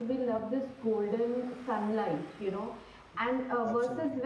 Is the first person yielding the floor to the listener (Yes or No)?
No